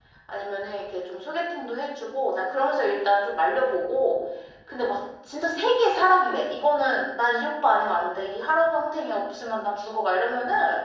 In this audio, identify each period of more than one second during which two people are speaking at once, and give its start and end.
none

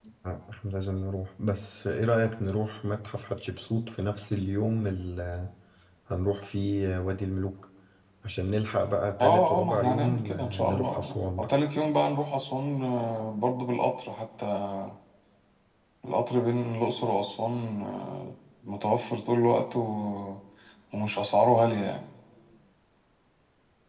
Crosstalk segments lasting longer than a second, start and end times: 9.2-11.5

